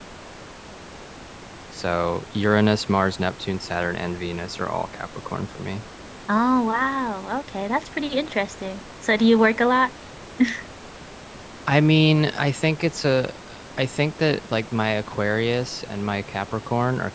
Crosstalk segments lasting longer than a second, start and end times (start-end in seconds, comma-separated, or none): none